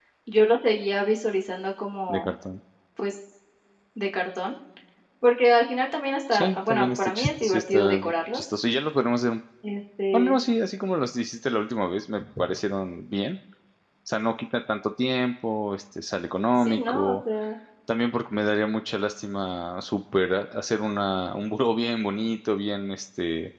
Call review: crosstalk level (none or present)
present